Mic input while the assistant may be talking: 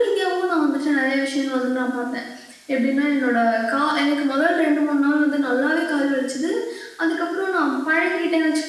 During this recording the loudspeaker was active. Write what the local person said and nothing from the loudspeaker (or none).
none